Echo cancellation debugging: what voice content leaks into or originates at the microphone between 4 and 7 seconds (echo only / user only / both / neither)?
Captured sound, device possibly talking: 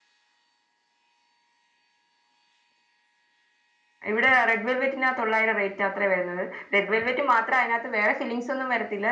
user only